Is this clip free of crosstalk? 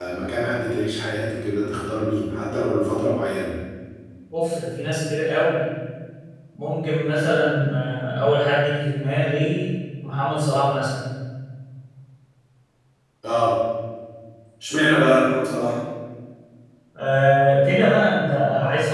Yes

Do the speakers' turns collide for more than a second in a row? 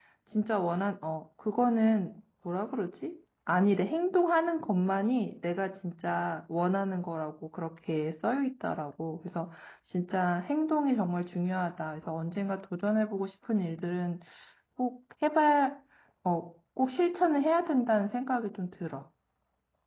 No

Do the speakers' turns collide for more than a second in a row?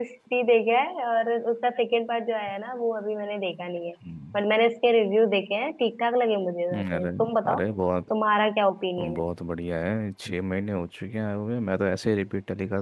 No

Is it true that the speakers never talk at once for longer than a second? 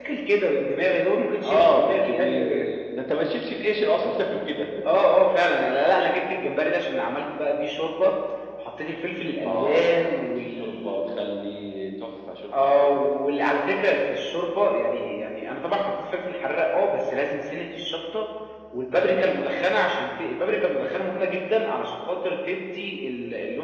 No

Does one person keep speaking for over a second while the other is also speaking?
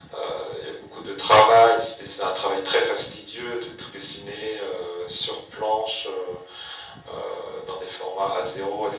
No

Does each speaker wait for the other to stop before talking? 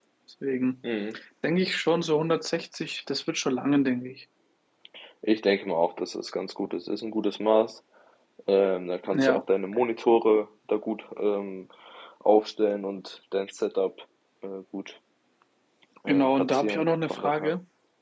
No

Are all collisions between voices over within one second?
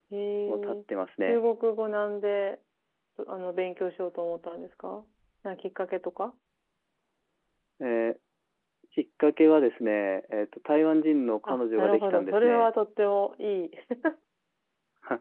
No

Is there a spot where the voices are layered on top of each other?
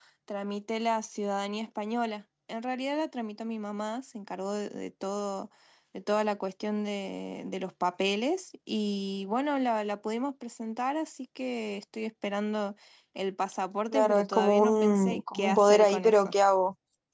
Yes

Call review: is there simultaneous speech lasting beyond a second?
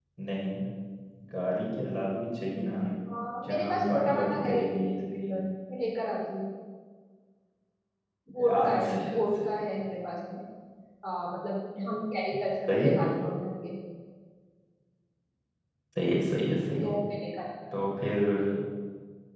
Yes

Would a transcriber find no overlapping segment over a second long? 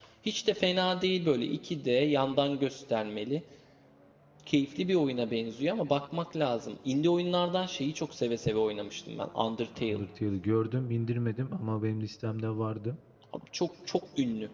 Yes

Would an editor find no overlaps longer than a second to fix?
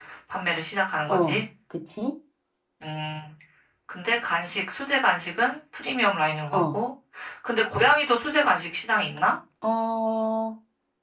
Yes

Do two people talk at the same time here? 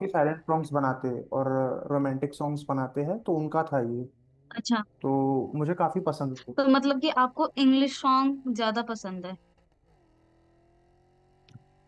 No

